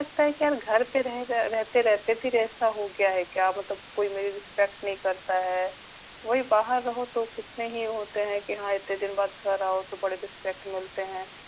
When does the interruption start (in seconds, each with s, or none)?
none